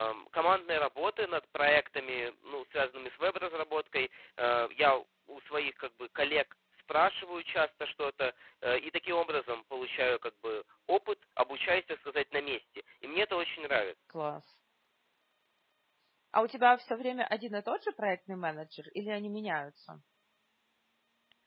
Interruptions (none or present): none